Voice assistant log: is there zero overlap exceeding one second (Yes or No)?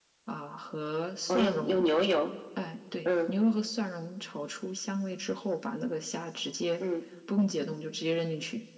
Yes